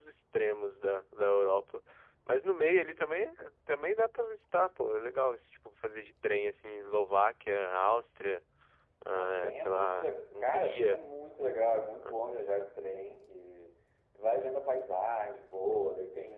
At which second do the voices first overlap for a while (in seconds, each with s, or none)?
9.1 s